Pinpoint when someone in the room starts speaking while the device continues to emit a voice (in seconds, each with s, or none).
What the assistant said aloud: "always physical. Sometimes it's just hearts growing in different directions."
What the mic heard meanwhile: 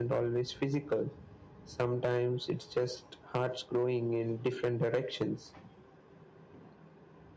none